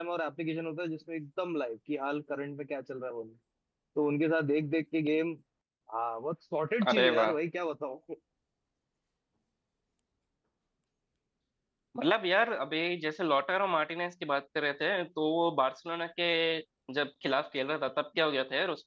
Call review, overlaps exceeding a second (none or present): none